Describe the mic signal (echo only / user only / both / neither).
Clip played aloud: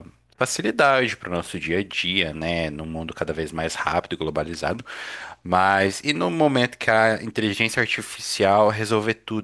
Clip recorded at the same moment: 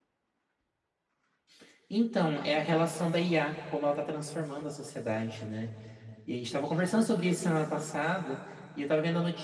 user only